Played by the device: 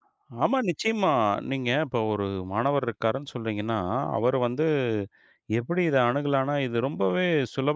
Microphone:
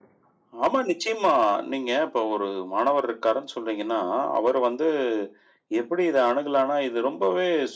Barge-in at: none

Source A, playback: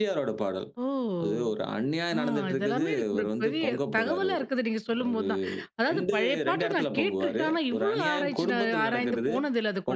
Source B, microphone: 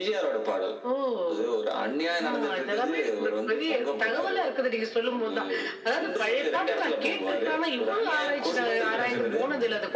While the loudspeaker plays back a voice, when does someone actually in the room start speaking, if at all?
8.6 s

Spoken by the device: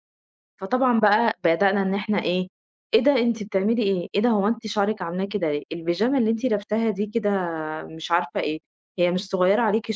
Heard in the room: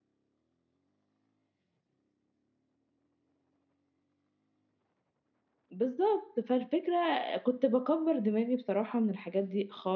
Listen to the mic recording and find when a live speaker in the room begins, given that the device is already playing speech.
5.7 s

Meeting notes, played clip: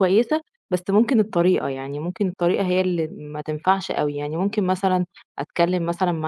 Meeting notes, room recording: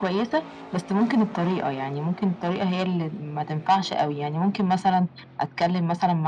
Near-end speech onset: none

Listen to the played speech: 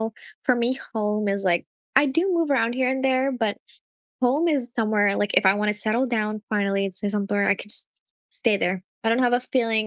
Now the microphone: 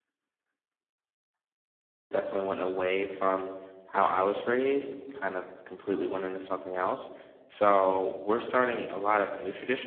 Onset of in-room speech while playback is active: 2.1 s

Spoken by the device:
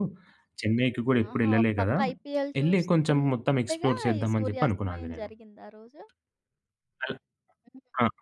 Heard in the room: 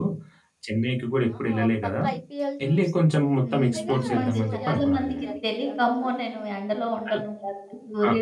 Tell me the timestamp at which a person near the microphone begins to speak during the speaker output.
3.5 s

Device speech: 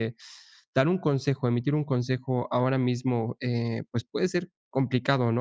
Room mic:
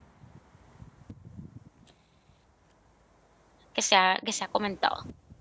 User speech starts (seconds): 3.7 s

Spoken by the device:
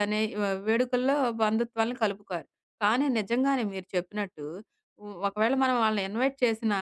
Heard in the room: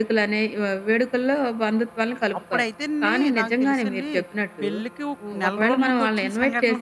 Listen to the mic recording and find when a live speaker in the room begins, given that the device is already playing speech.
2.4 s

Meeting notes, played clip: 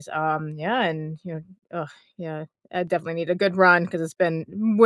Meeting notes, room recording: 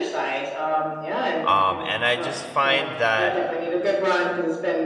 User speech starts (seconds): 1.4 s

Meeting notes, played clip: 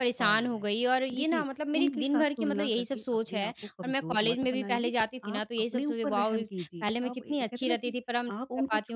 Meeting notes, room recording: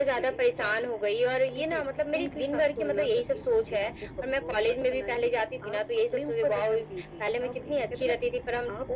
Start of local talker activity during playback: none

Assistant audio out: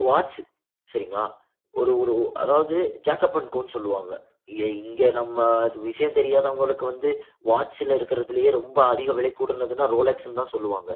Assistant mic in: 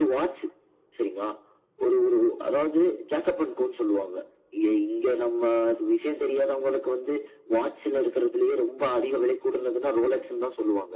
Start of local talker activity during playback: none

